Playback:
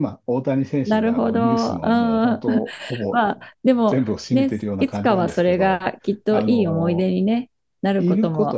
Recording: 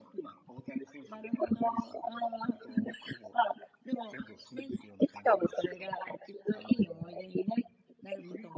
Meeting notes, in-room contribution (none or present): none